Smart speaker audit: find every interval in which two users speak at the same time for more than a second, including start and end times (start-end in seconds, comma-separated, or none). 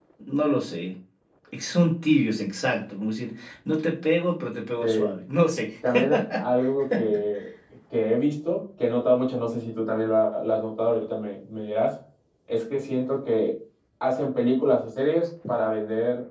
none